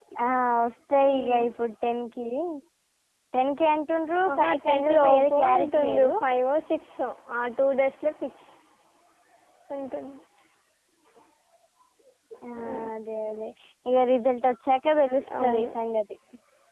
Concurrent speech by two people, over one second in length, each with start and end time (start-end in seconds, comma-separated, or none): 4.3-6.1